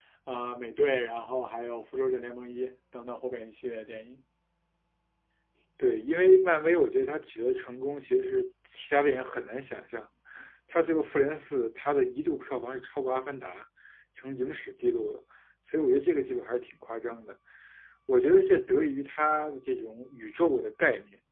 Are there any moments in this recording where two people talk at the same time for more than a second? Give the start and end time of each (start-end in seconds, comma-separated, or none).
none